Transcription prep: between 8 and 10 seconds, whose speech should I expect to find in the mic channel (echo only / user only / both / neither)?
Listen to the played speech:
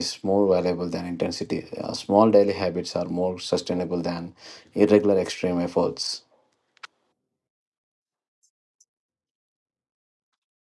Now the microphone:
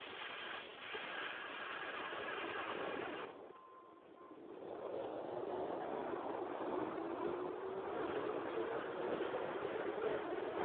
neither